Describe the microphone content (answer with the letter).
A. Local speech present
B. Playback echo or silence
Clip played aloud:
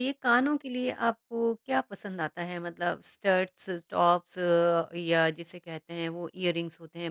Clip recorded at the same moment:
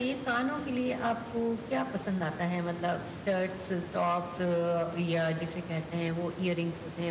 B